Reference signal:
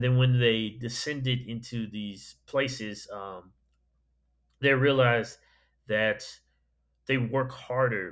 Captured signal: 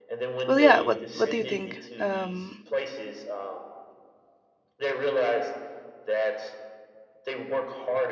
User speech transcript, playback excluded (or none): well yeah what what do you think um